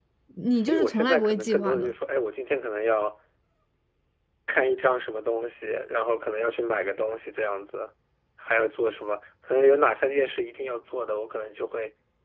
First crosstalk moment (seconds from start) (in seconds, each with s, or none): 0.5 s